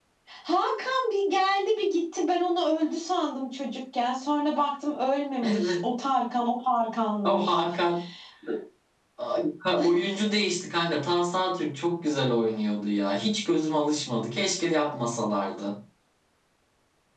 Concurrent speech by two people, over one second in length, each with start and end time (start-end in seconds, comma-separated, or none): none